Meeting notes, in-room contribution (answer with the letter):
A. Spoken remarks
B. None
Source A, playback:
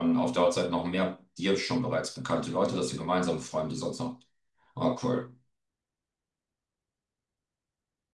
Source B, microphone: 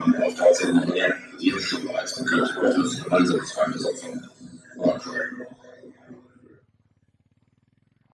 B